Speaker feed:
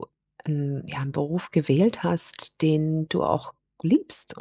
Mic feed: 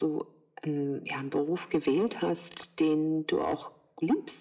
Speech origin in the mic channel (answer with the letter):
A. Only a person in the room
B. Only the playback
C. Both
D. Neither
B